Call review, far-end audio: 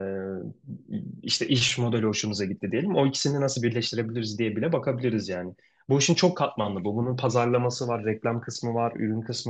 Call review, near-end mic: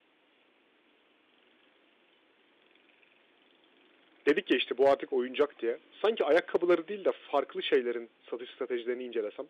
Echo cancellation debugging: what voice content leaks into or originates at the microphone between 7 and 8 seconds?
user only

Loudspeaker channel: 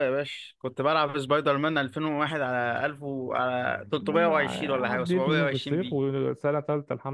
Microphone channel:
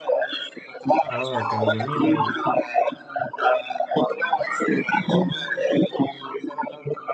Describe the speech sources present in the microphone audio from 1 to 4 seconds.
both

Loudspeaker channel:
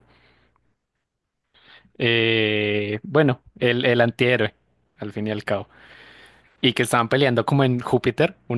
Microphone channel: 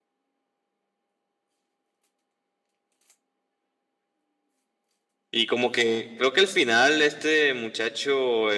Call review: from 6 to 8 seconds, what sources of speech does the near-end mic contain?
user only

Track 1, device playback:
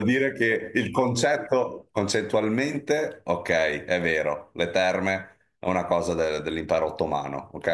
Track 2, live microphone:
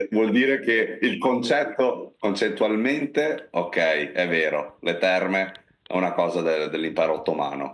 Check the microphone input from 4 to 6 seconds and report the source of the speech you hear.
echo only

